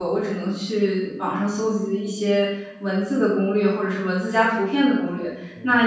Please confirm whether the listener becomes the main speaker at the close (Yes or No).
No